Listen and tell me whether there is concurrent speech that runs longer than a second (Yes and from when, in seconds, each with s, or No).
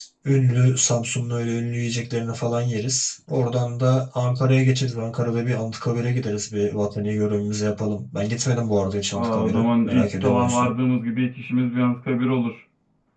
Yes, from 9.1 s